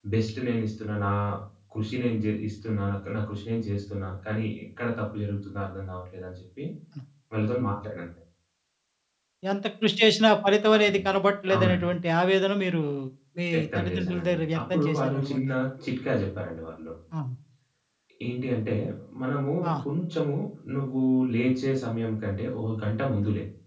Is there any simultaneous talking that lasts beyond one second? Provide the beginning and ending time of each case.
13.5-15.4

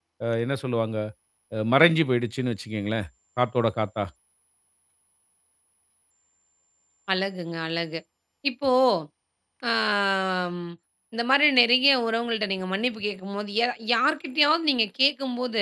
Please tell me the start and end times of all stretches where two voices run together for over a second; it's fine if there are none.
none

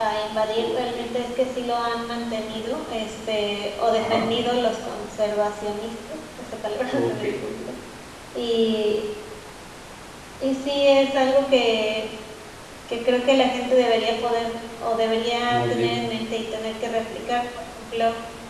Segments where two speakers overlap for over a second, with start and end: none

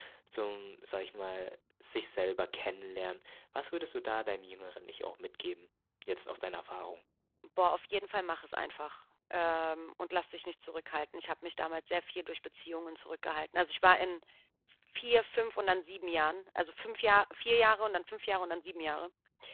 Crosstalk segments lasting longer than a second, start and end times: none

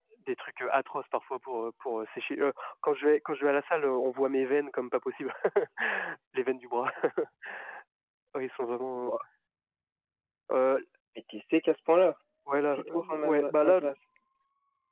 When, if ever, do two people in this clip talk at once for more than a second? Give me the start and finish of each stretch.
12.6-13.8

